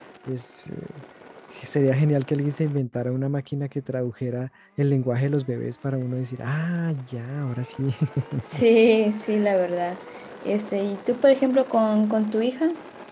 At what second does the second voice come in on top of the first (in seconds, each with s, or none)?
none